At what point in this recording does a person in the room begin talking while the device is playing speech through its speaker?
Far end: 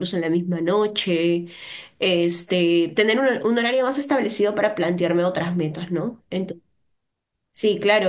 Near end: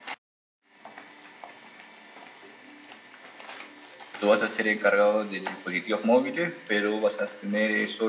4.2 s

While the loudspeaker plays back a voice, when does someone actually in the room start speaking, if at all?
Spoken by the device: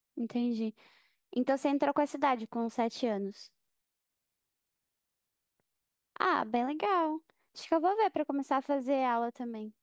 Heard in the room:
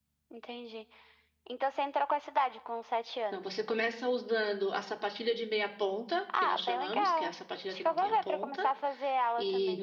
3.3 s

